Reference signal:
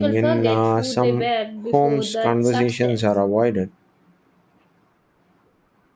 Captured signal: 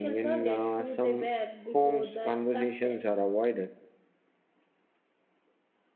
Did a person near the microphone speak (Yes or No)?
No